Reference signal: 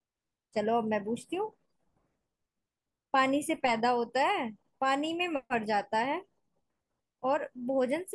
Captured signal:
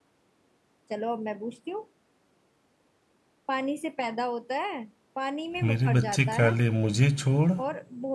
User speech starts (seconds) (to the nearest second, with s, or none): 6 s